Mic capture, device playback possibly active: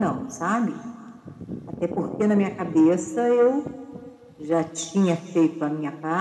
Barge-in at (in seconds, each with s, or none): none